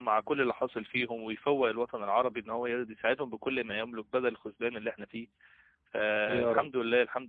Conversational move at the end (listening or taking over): listening